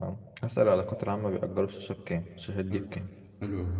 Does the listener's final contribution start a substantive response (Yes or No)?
Yes